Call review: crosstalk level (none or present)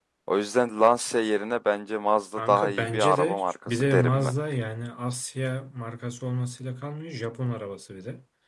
present